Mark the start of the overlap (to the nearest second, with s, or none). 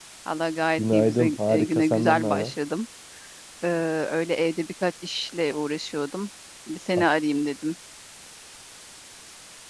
1 s